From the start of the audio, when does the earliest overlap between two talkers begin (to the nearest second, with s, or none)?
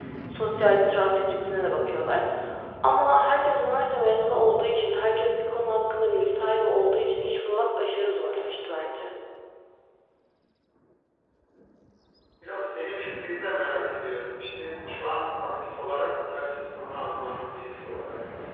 none